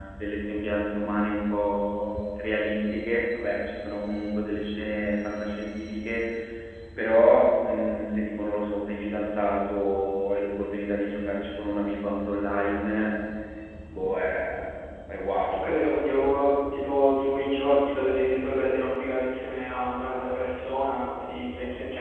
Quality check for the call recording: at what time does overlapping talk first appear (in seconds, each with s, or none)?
none